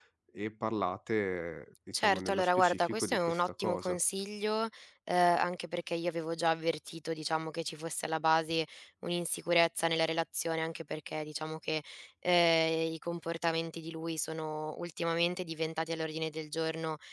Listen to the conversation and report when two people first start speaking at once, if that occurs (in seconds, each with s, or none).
1.9 s